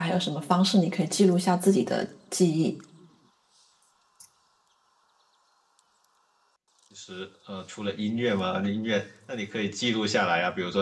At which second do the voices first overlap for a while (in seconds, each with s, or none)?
none